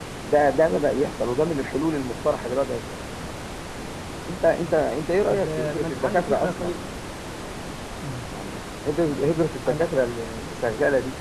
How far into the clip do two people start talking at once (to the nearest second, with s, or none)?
5 s